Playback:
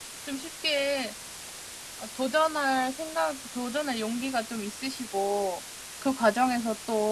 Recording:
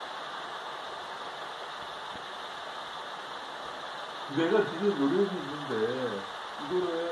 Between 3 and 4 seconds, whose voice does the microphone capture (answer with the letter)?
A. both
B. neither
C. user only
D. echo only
B